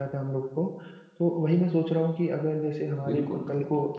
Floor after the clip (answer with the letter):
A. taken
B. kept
B